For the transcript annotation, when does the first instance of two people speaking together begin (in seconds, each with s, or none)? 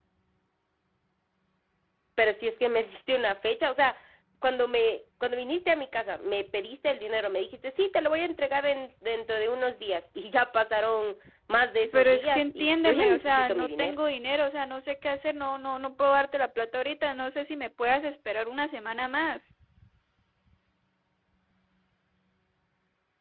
11.8 s